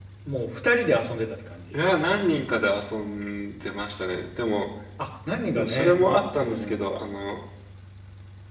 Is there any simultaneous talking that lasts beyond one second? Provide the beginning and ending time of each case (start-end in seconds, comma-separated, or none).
5.6-6.8